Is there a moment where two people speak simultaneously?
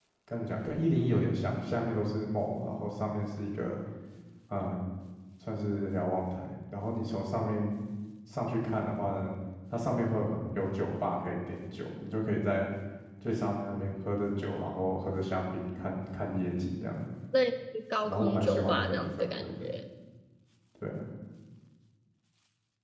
Yes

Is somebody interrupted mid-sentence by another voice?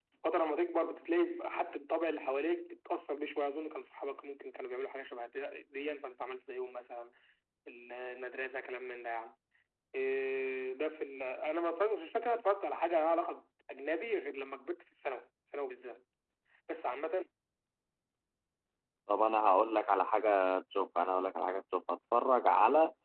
No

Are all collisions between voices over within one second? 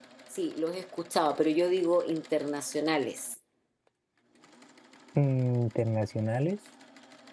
Yes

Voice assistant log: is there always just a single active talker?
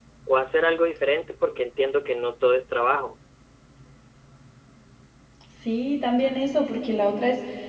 Yes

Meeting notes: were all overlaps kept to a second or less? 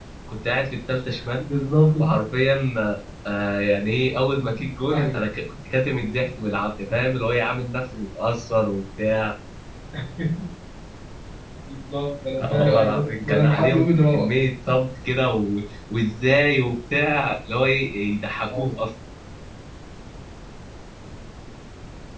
No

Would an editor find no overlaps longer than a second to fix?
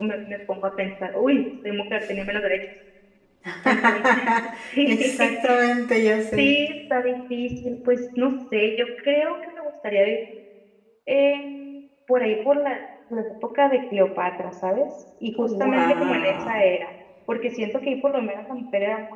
No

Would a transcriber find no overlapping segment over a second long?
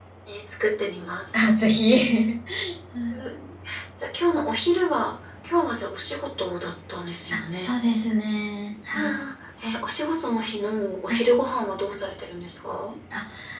Yes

